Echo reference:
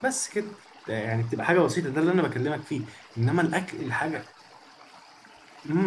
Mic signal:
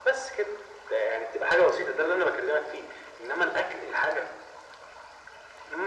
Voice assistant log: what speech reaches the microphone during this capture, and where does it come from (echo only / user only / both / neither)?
echo only